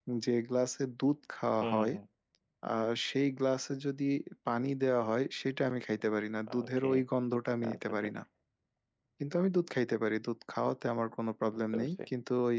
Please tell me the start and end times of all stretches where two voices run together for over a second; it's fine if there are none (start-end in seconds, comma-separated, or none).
none